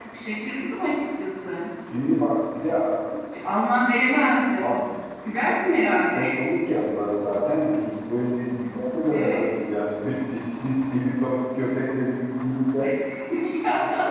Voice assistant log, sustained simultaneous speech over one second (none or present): none